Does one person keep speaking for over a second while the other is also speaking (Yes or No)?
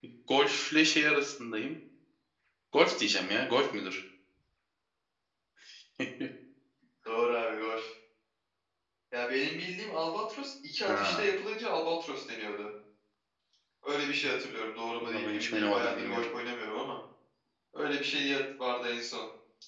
Yes